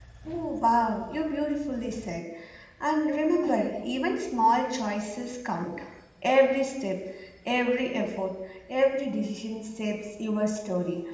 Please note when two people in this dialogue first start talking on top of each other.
none

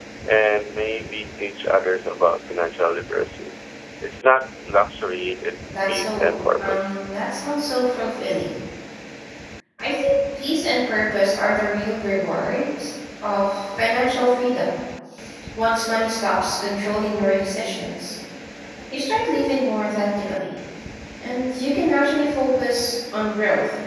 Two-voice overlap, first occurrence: 5.7 s

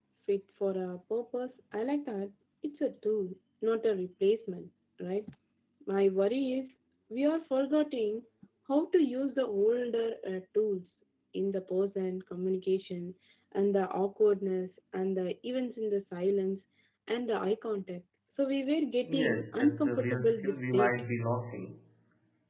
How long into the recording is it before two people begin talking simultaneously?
19.1 s

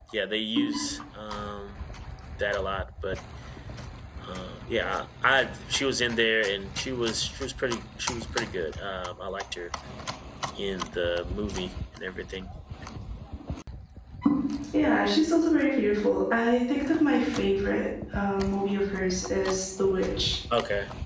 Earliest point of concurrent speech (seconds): none

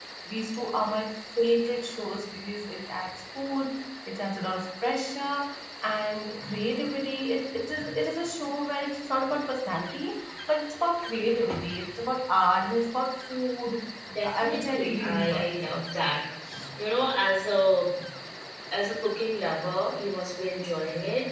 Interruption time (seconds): 14.2 s

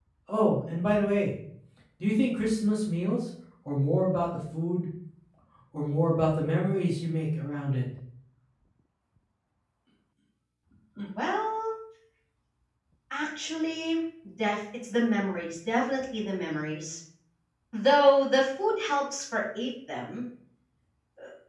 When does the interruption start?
none

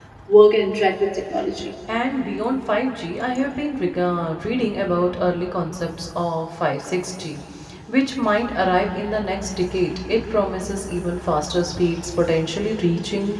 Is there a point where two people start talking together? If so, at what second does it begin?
none

